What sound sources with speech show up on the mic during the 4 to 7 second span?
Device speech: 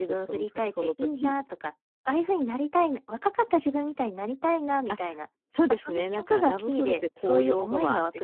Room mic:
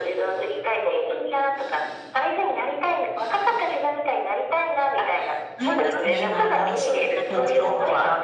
both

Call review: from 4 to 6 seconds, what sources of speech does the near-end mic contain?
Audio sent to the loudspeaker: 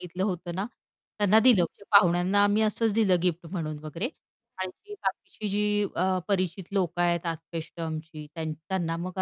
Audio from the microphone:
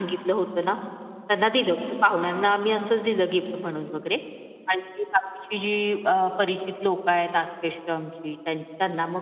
echo only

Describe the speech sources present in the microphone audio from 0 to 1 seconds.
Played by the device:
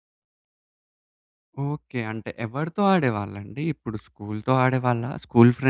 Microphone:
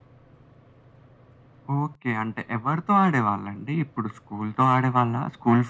neither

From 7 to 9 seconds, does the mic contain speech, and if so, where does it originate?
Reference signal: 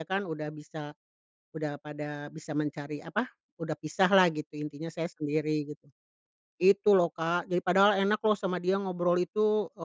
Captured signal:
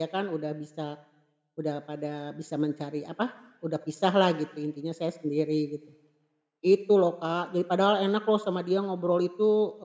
echo only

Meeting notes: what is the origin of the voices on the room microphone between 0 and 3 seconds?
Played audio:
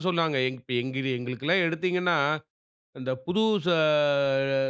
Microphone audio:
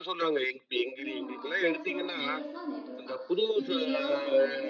both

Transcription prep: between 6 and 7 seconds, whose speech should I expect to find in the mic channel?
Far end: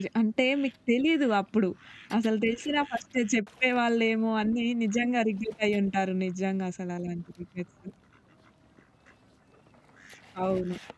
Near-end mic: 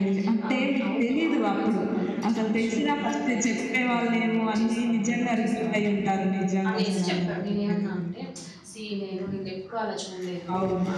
both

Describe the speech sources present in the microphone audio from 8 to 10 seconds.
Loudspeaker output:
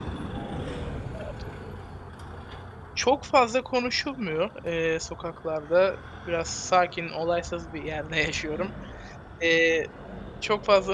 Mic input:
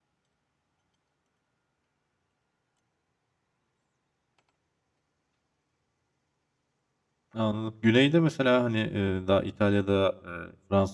user only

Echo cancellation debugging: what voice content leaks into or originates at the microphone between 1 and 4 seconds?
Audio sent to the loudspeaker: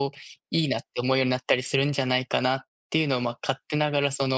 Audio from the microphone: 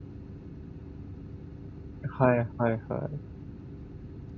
user only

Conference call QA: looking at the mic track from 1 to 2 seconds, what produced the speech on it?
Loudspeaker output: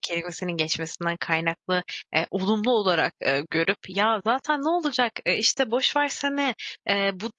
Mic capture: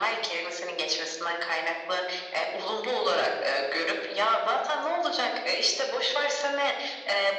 echo only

